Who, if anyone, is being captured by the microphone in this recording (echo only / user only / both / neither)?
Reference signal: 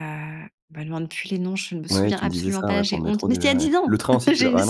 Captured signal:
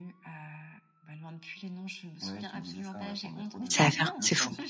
both